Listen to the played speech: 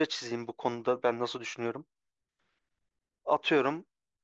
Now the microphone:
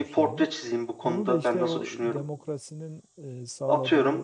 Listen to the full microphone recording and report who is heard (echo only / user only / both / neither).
both